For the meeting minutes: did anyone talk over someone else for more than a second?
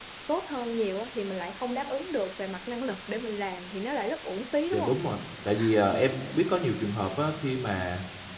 No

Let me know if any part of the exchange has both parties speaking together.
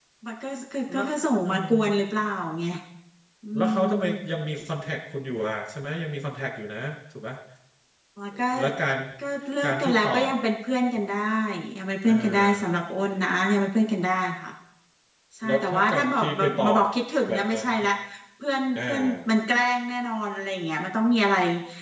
Yes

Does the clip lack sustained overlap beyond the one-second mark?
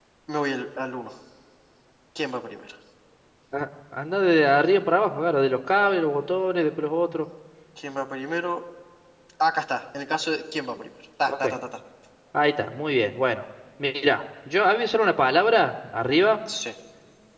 Yes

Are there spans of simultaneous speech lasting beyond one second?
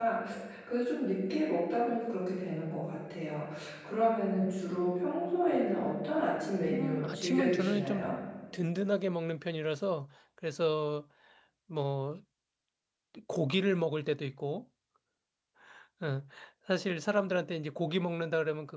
Yes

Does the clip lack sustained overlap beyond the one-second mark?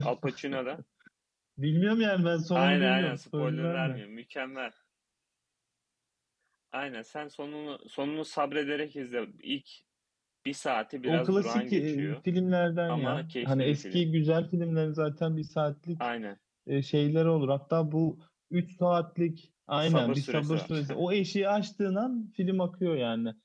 No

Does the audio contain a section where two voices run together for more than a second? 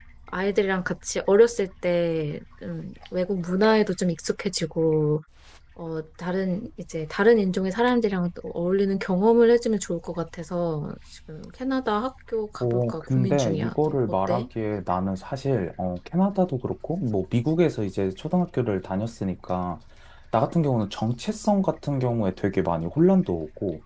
Yes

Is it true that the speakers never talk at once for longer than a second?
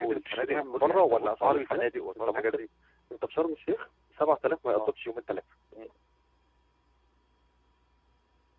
No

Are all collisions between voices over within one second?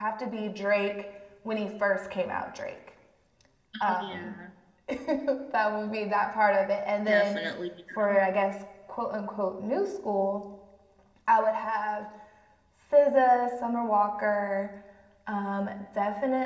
Yes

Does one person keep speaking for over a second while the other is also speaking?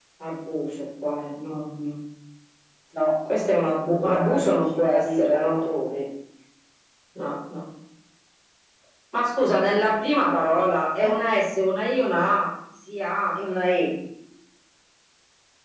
Yes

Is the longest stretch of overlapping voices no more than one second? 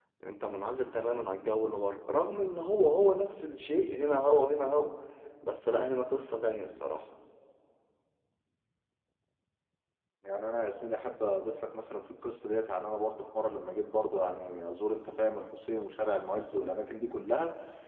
Yes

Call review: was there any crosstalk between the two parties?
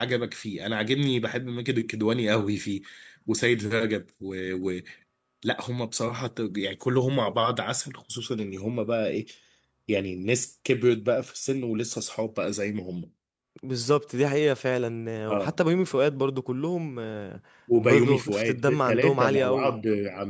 Yes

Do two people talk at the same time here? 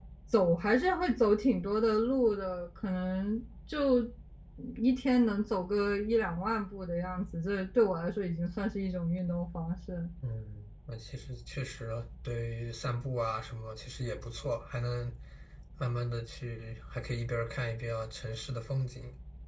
No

